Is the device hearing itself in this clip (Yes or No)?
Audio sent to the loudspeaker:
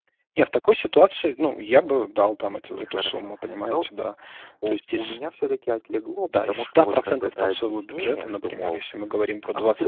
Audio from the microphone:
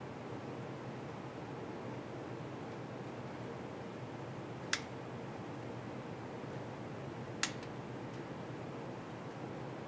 No